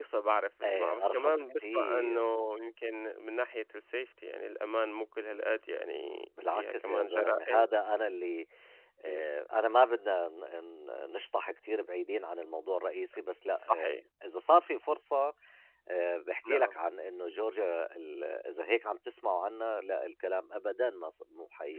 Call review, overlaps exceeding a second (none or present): present